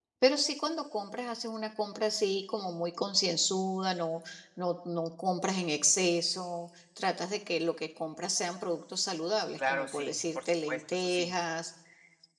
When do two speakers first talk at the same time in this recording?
10 s

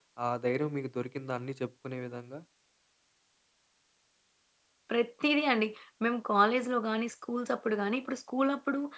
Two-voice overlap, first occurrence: none

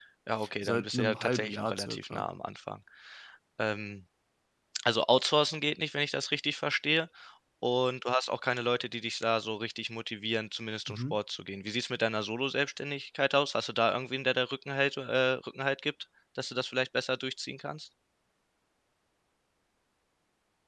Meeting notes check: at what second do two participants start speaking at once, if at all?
1 s

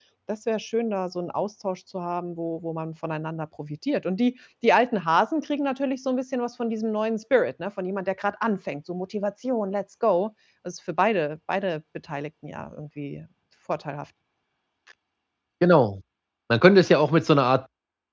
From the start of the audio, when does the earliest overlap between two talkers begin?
none

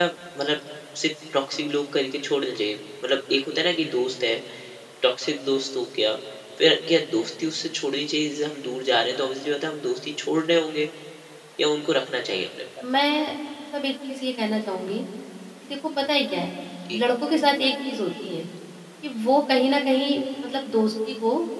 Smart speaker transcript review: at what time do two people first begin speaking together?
none

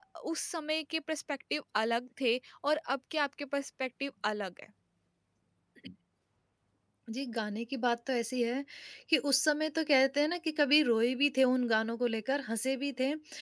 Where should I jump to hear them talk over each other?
none

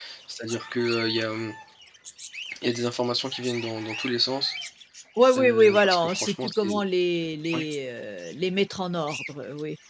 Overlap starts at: 5 s

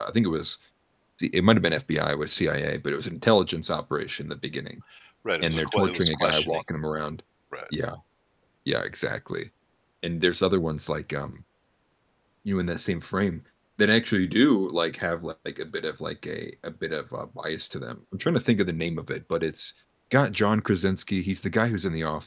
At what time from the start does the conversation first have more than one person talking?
5 s

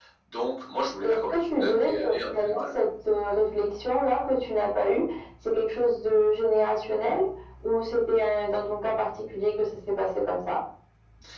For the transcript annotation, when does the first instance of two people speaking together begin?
1 s

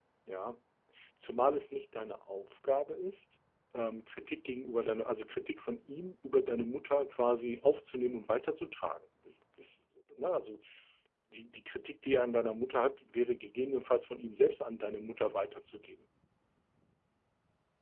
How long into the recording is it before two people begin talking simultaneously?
none

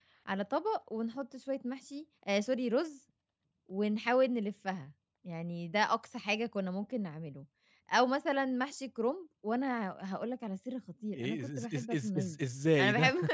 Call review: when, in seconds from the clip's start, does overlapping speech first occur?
11 s

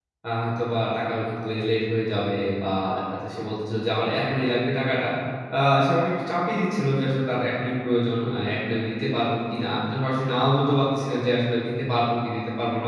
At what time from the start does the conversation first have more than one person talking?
none

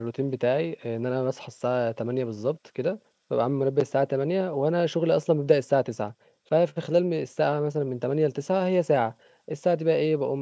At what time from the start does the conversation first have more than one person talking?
none

